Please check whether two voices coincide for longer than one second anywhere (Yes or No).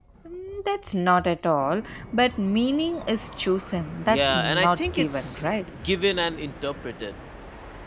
Yes